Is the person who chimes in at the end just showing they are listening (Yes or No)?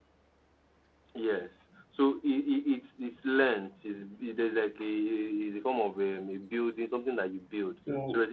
Yes